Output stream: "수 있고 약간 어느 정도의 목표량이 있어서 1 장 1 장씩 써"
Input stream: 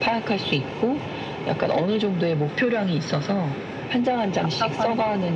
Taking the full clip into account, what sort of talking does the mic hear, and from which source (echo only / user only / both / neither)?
both